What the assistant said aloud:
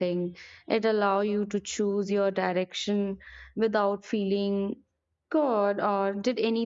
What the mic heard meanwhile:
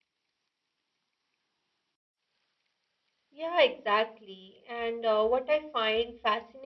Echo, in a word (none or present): none